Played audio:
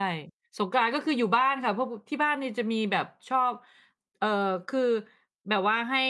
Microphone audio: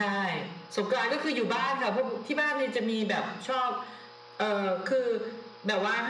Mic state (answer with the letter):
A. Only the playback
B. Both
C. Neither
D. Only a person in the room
A